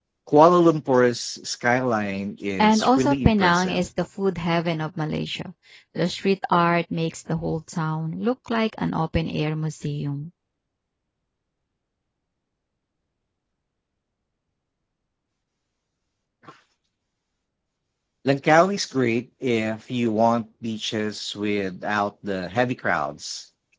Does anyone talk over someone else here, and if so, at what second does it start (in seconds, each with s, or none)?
2.6 s